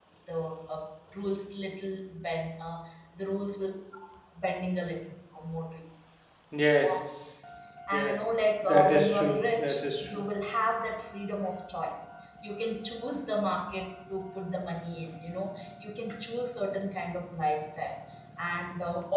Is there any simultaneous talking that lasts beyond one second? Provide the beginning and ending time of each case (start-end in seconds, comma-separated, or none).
8.6-10.2